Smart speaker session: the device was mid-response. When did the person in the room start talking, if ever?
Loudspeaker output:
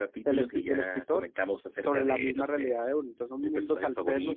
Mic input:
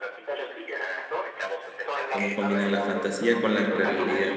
2.1 s

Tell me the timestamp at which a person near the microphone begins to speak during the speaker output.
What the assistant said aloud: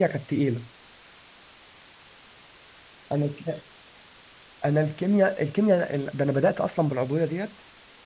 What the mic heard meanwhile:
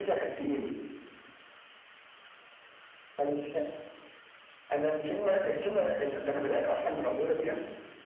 none

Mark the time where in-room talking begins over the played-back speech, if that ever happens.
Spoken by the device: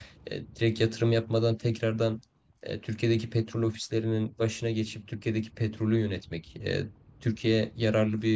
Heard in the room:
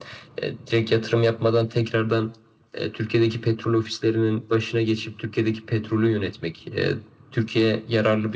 none

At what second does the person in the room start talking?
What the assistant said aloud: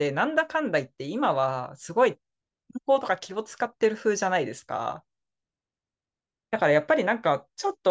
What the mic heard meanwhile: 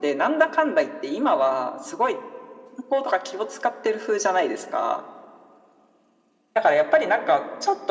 none

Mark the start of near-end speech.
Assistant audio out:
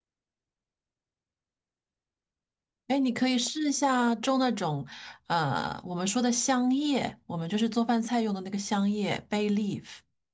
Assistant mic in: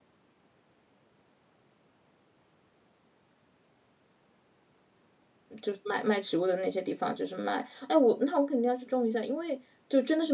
5.6 s

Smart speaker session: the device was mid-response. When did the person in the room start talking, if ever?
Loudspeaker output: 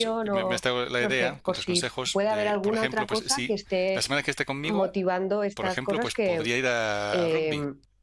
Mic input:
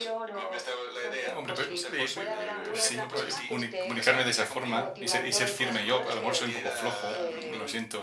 1.3 s

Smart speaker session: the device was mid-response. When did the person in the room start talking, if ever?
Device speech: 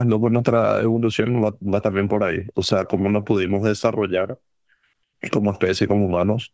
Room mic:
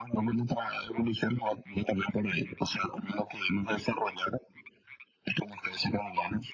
none

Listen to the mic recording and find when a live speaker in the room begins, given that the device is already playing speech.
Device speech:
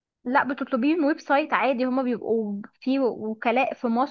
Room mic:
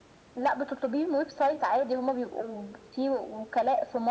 none

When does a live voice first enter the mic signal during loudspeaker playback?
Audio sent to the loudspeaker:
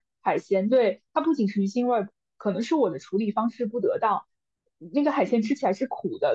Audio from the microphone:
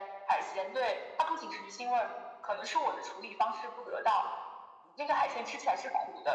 none

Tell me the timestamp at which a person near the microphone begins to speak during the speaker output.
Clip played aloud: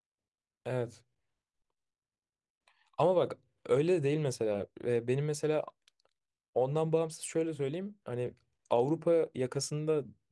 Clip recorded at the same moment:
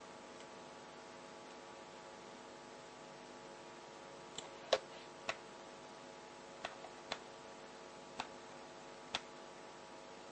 none

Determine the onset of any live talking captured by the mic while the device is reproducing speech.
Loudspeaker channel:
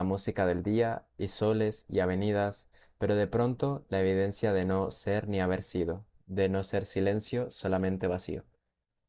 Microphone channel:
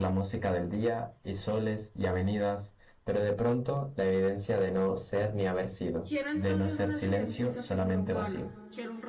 6.0 s

